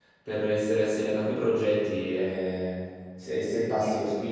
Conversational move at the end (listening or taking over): listening